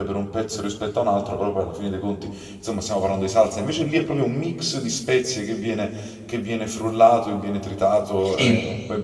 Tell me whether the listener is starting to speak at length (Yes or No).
No